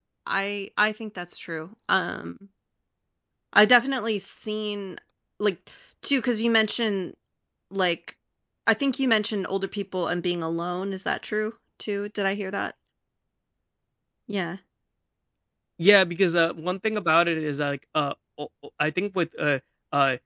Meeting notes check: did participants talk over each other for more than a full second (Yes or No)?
No